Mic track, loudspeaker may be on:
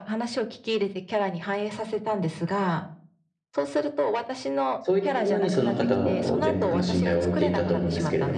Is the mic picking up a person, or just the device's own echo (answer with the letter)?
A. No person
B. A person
B